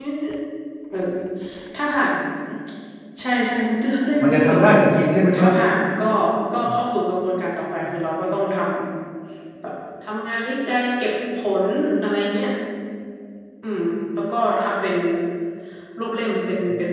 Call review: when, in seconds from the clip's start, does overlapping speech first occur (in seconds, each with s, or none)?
4.2 s